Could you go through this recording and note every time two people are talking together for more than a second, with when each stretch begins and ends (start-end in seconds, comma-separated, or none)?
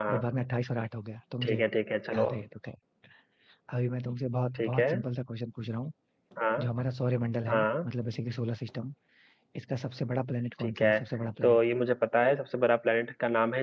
none